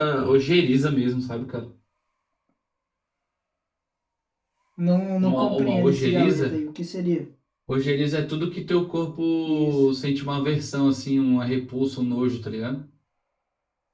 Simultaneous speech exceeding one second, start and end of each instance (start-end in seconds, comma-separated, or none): 5.2-6.5